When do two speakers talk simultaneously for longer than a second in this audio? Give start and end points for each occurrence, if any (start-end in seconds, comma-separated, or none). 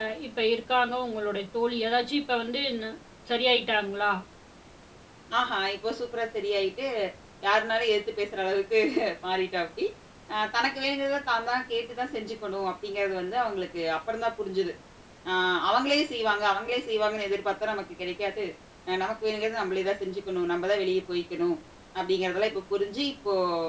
none